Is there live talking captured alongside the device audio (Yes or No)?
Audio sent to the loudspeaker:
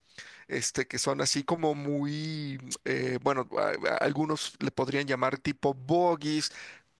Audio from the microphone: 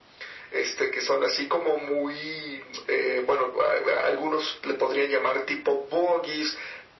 No